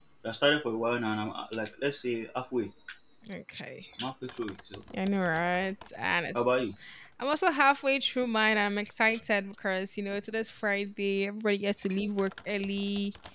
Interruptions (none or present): none